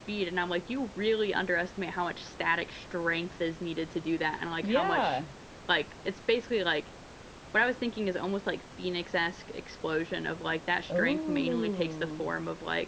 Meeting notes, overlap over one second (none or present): present